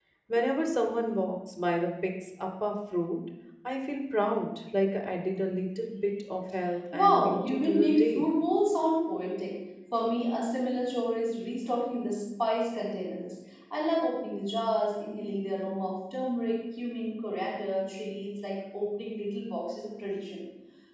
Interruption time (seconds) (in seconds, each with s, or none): 6.9 s